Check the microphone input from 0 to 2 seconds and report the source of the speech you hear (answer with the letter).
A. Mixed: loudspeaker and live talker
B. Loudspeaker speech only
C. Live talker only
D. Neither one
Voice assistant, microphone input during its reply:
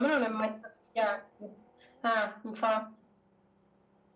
B